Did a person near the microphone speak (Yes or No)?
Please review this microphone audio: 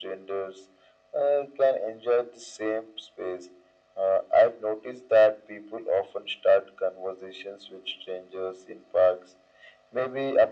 No